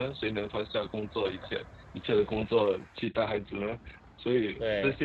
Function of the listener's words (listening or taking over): listening